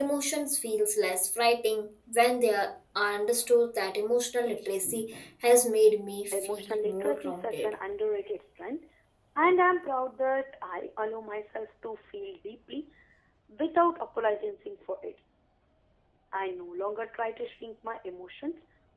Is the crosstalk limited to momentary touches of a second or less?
No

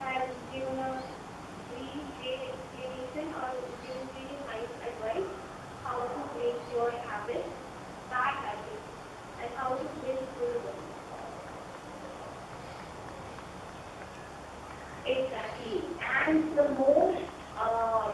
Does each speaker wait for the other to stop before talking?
Yes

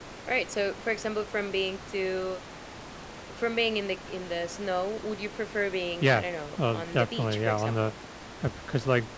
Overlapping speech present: Yes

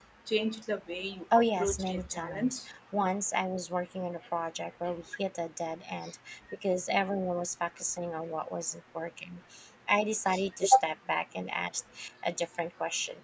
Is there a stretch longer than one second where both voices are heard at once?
Yes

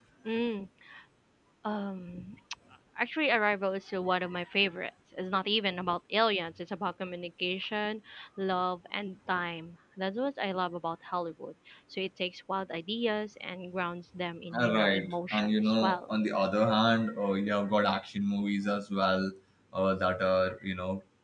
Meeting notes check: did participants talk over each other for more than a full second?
Yes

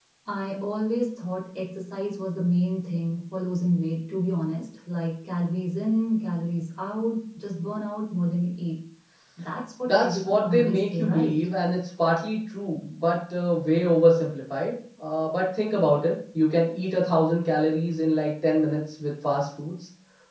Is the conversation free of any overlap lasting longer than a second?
No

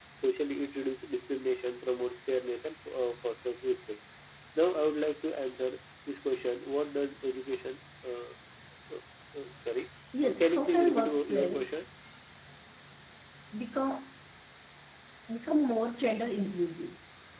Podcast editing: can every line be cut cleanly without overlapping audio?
No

